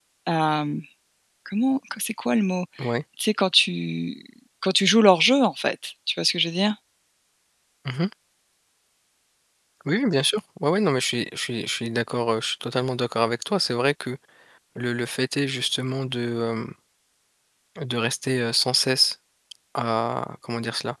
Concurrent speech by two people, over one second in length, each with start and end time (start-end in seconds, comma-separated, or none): none